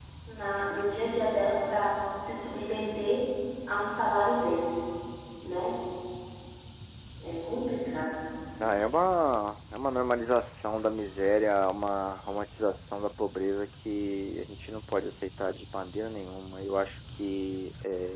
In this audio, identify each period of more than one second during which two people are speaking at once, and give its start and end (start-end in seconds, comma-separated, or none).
none